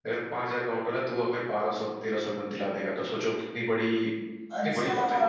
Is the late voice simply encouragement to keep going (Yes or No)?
No